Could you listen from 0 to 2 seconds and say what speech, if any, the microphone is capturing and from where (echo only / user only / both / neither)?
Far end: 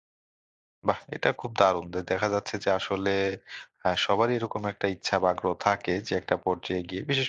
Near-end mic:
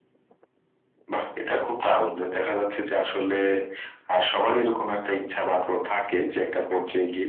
echo only